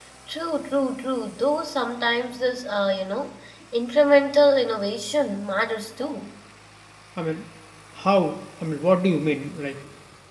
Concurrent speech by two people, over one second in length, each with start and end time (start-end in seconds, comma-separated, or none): none